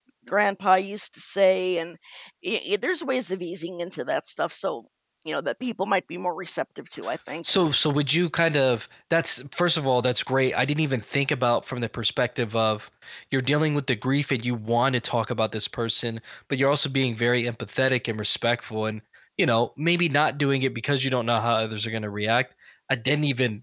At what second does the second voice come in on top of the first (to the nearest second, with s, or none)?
none